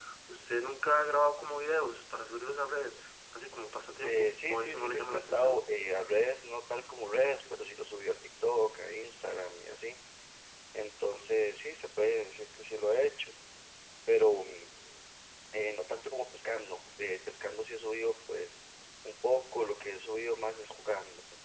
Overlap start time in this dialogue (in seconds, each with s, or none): 4.0 s